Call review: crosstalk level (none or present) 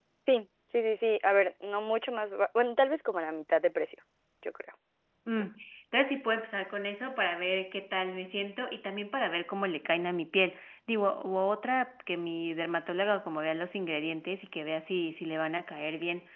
none